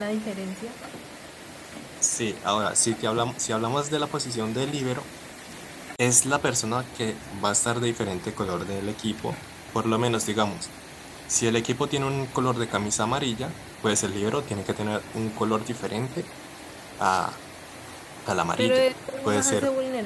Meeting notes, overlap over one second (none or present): none